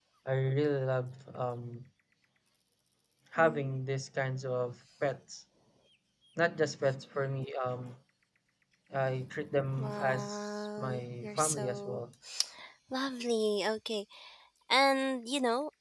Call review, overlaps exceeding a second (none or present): present